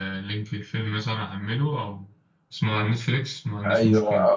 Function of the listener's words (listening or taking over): taking over